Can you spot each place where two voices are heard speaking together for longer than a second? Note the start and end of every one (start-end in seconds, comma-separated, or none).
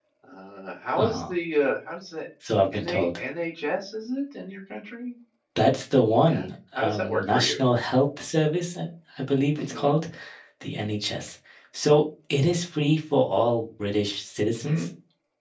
6.3-7.6